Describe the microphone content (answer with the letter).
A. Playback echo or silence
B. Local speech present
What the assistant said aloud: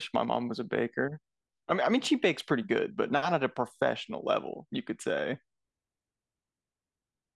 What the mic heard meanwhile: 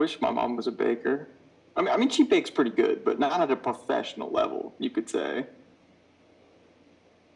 A